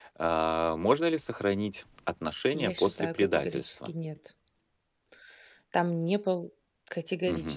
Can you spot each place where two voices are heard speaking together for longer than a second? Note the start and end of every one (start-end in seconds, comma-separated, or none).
2.5-3.9